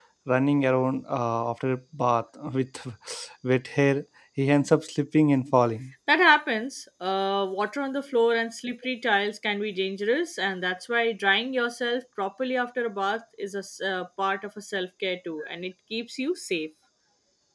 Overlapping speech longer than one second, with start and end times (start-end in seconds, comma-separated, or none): none